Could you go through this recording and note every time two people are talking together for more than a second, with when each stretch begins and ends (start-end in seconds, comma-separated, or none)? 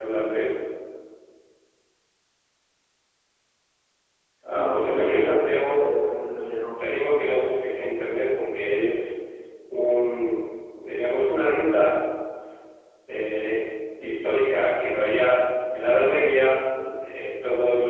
4.5-5.9